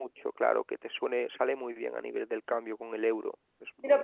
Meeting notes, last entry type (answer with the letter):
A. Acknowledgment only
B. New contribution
B